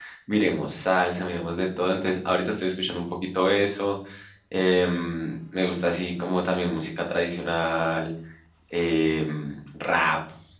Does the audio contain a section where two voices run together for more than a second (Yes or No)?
No